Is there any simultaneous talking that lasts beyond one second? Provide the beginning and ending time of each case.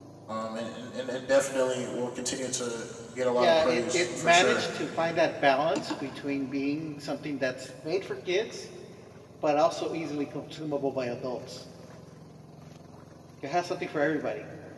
3.4-4.7

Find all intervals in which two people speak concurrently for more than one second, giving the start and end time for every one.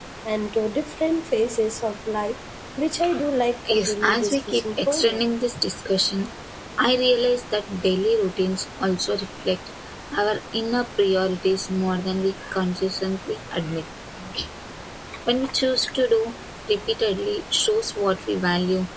3.7-5.2

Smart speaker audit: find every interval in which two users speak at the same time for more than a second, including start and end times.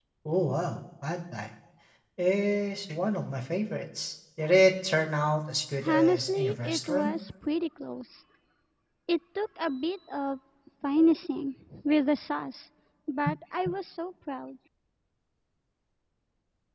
5.8-7.2

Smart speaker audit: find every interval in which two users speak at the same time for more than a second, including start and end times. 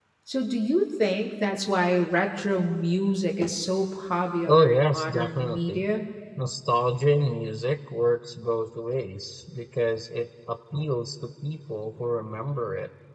4.5-5.8

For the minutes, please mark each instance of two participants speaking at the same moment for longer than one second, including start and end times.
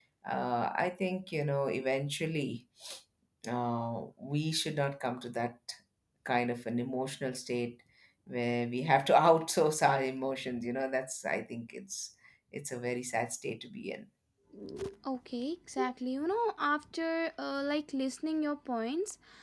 none

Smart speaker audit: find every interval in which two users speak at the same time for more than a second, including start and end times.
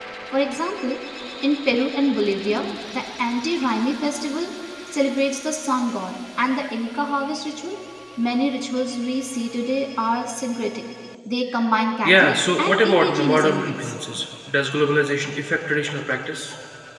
12.1-13.9

